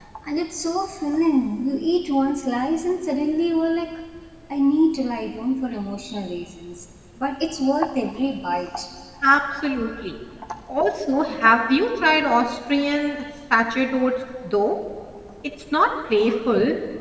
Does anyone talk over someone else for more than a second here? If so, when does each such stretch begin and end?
none

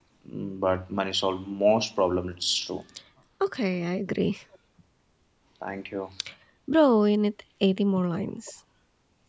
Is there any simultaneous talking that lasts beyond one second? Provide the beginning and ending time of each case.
none

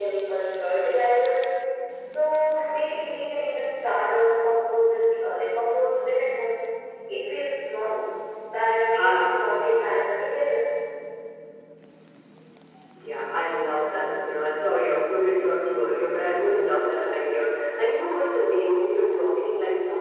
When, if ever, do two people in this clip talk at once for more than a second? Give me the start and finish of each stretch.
none

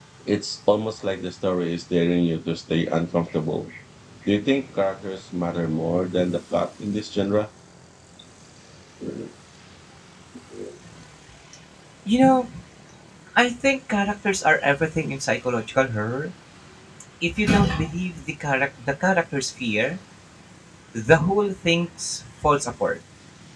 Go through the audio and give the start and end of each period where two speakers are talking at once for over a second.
none

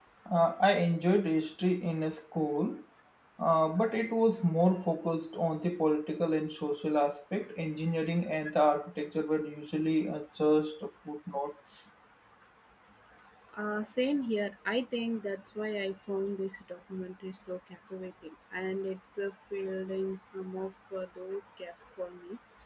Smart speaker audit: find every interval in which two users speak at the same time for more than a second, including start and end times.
none

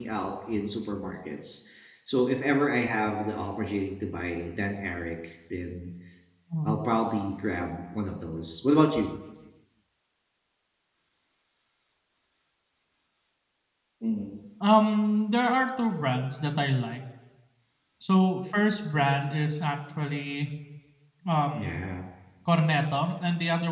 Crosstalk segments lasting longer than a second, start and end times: none

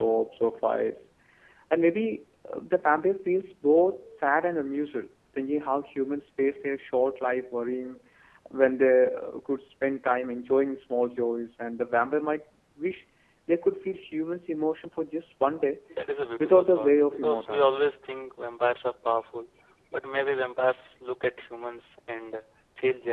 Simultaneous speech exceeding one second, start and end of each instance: 16.4-17.8

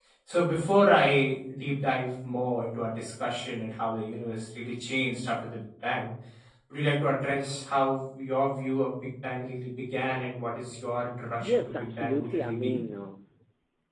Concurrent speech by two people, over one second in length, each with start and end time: 11.4-12.8

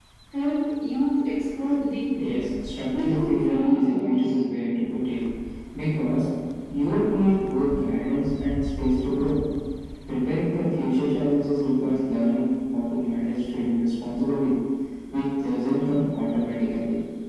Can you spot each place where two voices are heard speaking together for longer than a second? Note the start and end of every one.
3.0-4.2

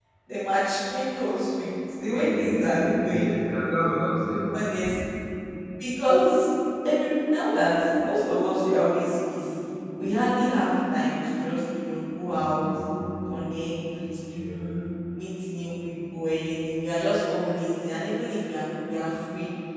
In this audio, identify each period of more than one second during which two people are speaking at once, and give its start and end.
2.1-3.4

